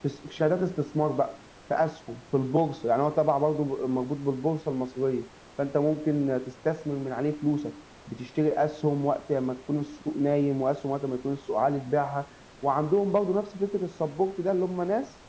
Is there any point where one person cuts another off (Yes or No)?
No